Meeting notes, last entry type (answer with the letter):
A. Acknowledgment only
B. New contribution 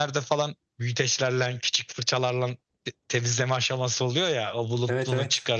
A